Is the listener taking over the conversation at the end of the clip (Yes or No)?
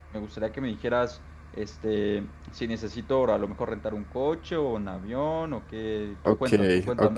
Yes